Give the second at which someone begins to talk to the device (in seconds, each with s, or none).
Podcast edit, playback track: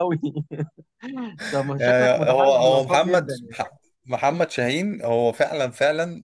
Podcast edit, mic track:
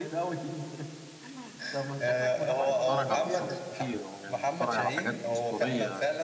2.7 s